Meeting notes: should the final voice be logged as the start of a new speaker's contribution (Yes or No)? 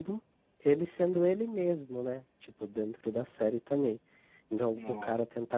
No